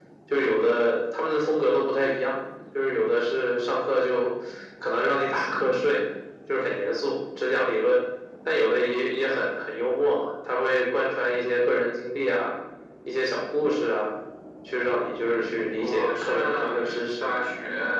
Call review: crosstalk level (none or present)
present